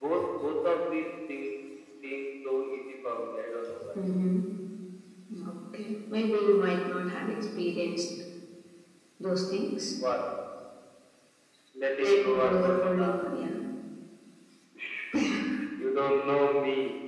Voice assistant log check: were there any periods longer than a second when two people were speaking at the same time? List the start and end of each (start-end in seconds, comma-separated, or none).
12.0-13.2